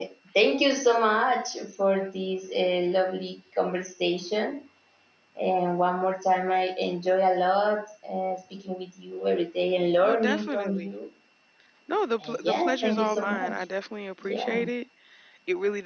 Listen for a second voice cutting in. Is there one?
Yes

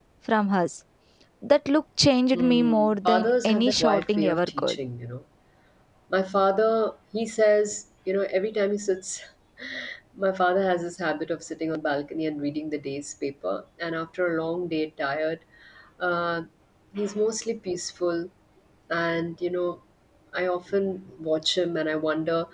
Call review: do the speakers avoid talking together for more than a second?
No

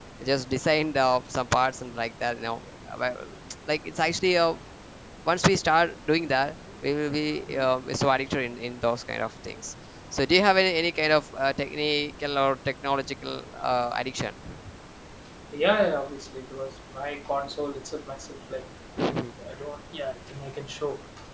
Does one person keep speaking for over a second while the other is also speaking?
No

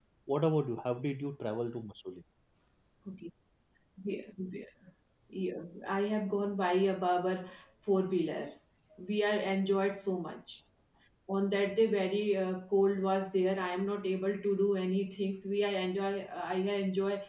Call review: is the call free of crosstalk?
Yes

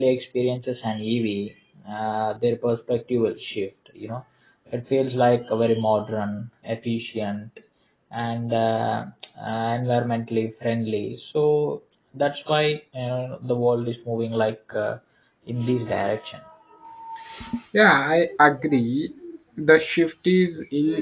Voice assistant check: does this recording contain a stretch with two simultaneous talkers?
No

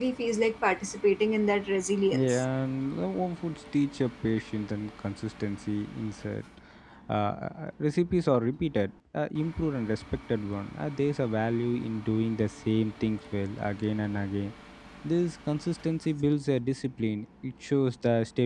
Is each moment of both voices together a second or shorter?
Yes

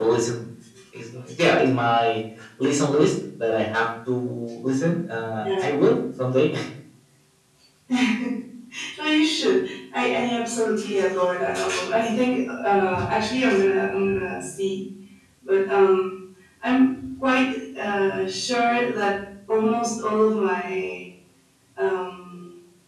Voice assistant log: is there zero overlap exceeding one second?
Yes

